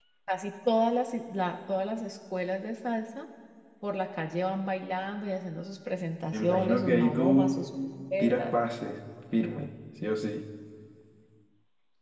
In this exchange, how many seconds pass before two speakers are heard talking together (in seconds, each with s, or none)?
6.3 s